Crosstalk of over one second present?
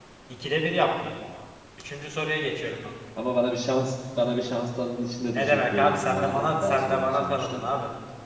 Yes, from 5.3 s

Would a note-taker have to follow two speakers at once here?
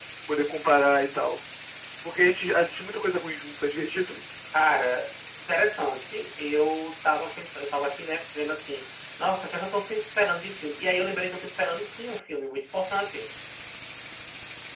No

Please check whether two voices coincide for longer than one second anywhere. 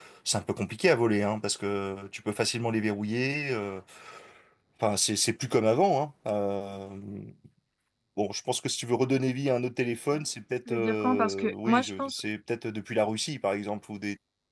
Yes, from 10.7 s

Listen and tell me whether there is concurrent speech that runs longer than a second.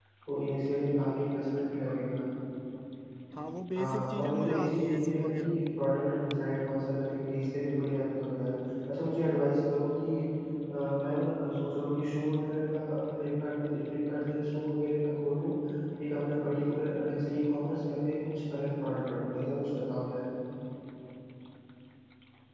Yes, from 3.8 s

